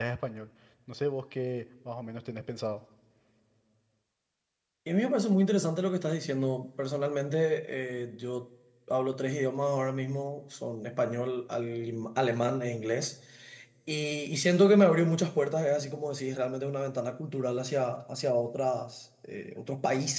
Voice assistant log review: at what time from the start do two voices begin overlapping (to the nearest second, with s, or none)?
none